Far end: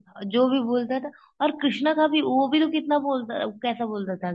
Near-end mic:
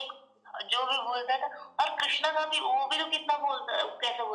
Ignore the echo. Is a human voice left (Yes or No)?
No